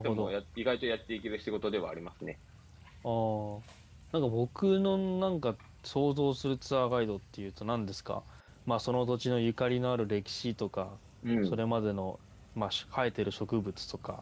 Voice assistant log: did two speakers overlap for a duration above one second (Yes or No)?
No